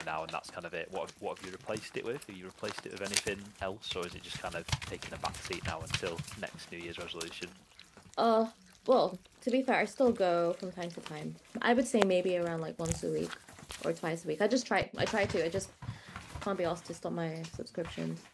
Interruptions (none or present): none